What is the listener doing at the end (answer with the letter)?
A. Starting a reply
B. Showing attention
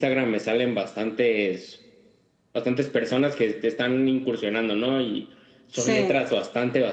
B